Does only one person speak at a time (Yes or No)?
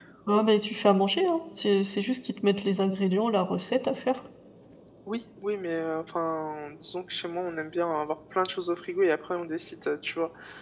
Yes